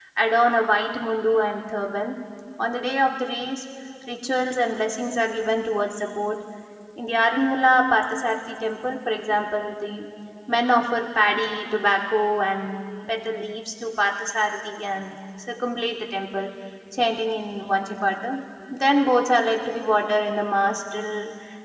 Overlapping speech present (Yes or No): No